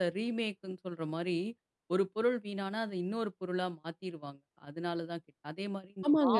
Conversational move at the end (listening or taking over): taking over